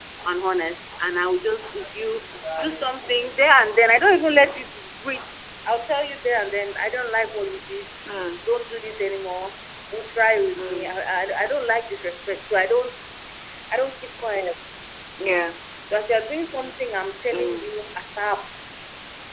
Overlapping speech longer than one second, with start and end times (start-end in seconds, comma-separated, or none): none